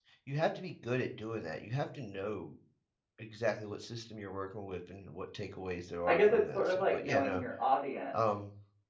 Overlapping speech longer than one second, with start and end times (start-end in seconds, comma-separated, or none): 6.1-7.4